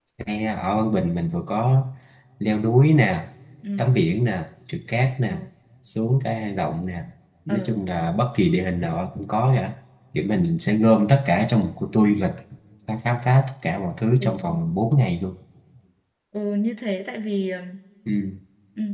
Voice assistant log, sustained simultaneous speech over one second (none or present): none